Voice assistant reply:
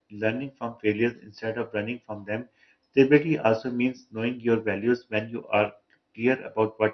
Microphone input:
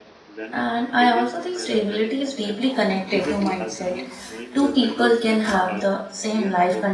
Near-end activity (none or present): present